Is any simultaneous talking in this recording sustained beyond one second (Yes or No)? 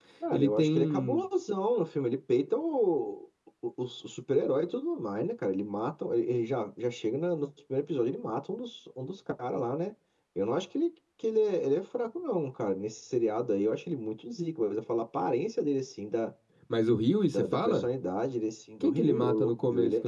Yes